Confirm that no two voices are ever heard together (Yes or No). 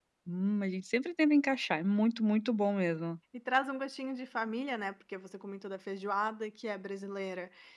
Yes